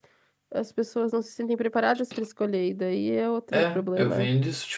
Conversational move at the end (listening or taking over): taking over